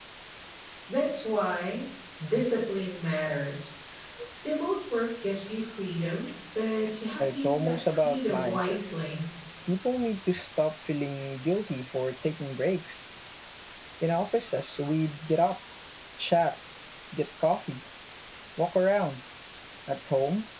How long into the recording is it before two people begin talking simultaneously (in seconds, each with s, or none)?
7.2 s